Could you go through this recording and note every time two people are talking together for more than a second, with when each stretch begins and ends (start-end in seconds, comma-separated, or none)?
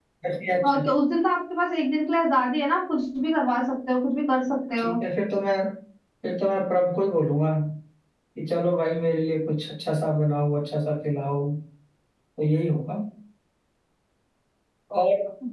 none